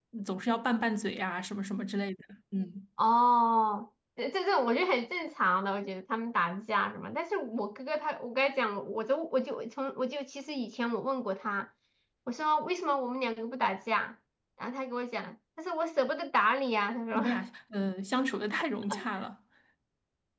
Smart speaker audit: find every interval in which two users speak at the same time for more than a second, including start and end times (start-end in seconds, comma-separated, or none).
none